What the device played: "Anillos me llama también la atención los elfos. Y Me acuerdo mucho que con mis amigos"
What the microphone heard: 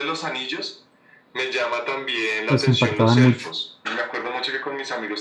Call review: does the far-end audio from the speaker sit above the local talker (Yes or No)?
No